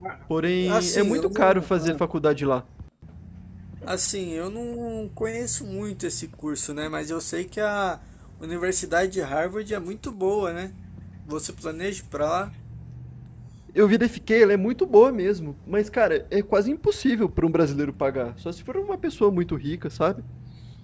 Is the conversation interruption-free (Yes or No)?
No